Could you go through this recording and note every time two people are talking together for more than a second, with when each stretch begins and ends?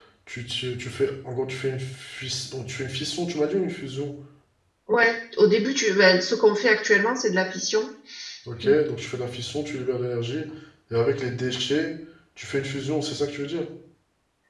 none

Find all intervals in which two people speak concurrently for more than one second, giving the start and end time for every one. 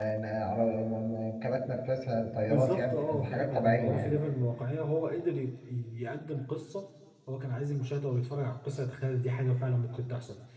2.5-4.2

